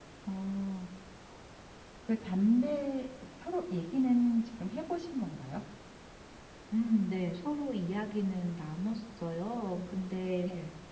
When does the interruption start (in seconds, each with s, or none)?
none